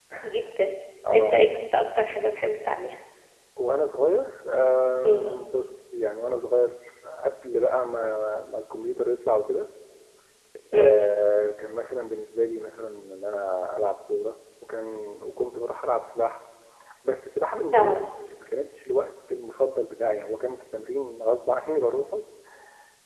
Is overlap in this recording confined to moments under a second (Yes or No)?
Yes